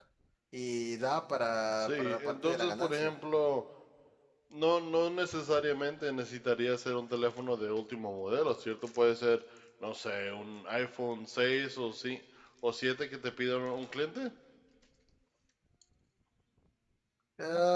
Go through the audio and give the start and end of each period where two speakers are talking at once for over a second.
1.8-3.1

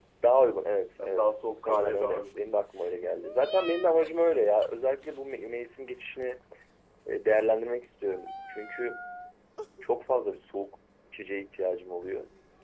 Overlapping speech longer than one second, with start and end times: 1.0-2.5

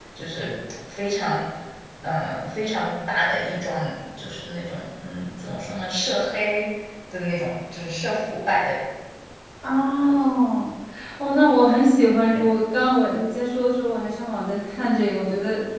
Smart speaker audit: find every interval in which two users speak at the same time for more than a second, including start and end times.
none

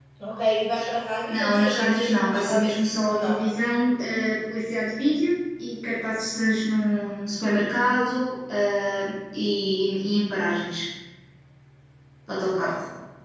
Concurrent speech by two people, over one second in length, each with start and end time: 1.3-3.4

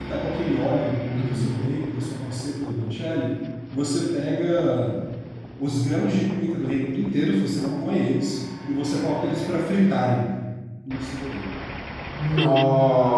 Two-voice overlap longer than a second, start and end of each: none

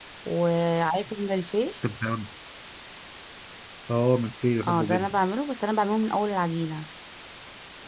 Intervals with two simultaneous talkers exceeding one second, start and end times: none

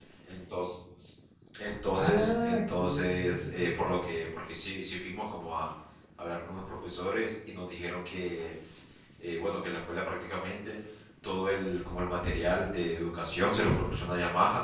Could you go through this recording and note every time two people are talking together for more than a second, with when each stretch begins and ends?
2.0-3.7

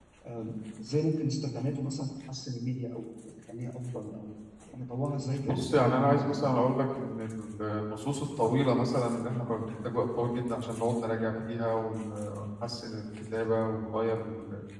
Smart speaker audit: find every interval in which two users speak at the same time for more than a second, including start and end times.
5.5-6.7

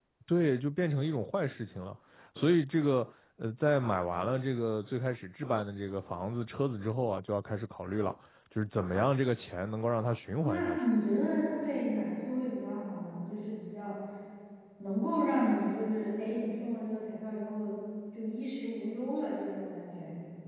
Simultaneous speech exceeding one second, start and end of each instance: none

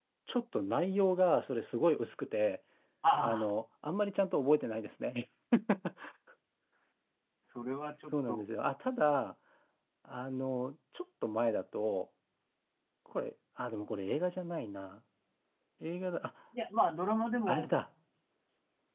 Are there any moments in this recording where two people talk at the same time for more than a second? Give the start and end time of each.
none

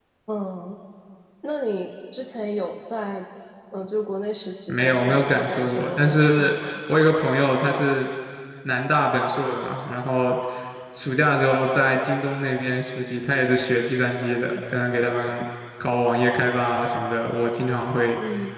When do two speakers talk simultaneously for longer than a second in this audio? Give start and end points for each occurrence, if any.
4.7-6.5

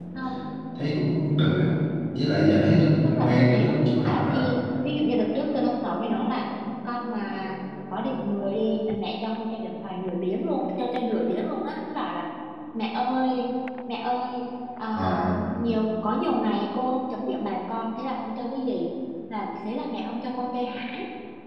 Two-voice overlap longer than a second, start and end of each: 3.0-4.5

